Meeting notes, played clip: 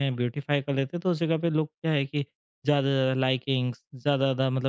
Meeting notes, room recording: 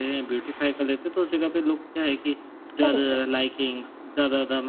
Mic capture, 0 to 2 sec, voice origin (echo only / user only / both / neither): echo only